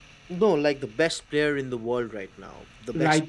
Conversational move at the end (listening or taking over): taking over